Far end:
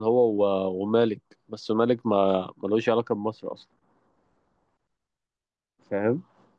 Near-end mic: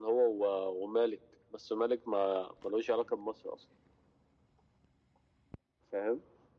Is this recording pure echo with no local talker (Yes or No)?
Yes